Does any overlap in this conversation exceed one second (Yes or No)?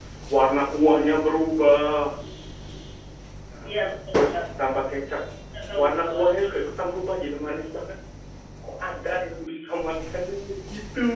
No